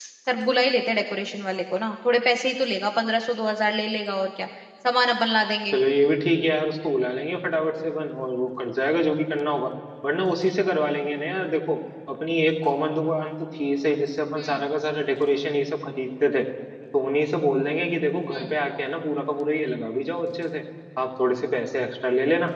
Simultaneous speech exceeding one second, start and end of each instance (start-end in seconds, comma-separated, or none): none